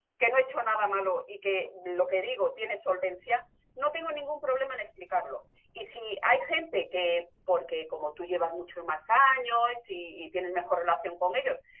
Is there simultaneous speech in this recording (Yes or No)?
No